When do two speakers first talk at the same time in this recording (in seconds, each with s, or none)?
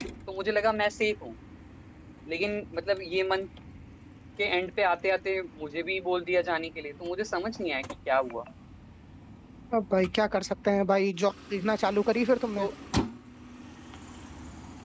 none